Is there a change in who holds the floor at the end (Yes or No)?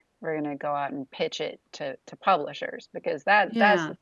No